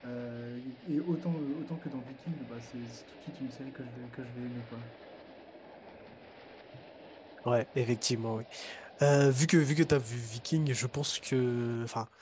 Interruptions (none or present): none